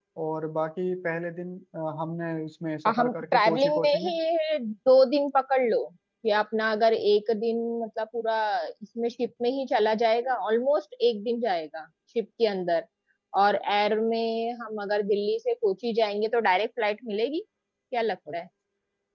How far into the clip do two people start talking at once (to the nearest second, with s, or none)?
3 s